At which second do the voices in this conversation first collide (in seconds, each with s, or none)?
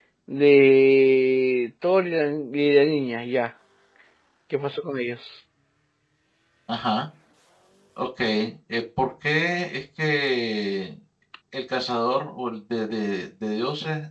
none